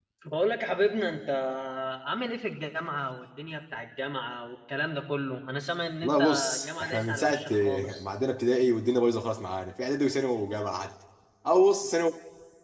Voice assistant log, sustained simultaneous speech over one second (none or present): present